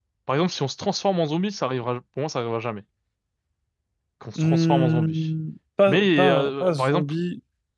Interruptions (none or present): present